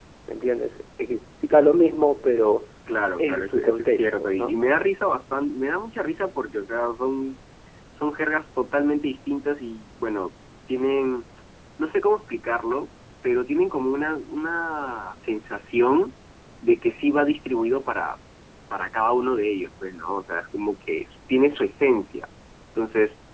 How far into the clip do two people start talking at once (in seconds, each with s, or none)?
3.2 s